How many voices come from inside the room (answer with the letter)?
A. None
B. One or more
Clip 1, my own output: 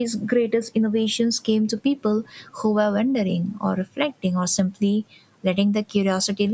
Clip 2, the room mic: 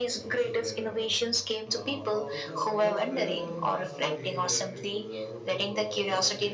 B